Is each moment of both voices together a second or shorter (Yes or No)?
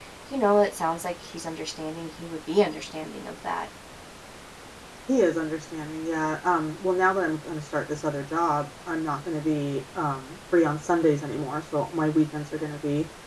Yes